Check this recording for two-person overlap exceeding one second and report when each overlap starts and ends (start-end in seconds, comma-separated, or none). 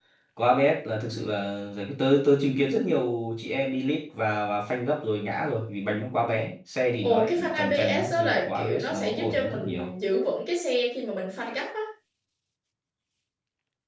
7.0-9.9